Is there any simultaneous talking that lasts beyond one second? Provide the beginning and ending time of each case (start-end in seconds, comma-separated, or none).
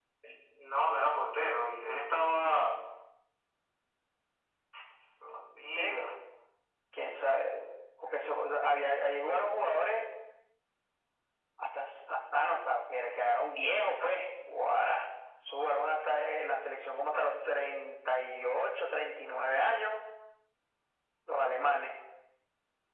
none